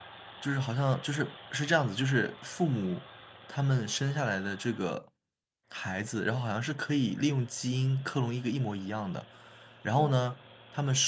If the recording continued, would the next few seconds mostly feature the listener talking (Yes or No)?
No